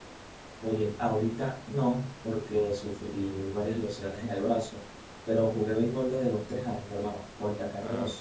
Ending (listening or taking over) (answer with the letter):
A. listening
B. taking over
A